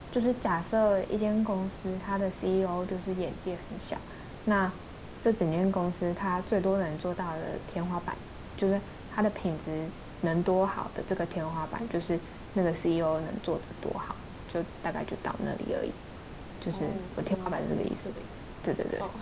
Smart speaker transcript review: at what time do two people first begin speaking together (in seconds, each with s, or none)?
16.7 s